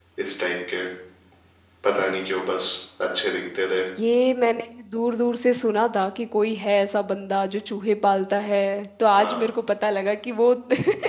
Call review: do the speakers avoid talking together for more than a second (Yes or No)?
Yes